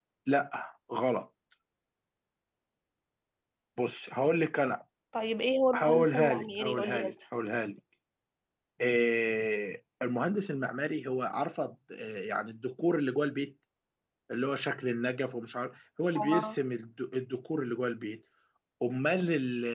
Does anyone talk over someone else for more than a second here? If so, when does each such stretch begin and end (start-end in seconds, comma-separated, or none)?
5.7-7.1